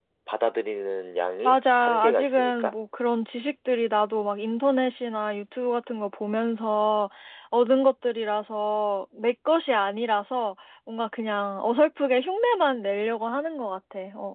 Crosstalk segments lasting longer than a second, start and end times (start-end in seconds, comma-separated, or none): 1.4-2.7